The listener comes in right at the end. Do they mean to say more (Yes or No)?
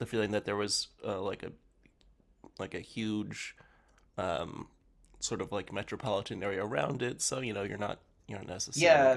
Yes